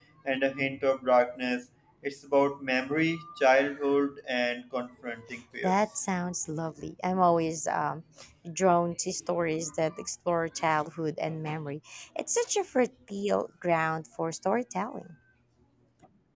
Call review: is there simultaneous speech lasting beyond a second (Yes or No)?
No